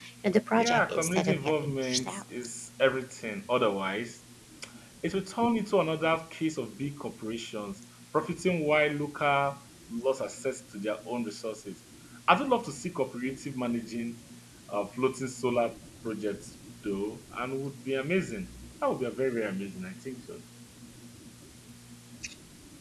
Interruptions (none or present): present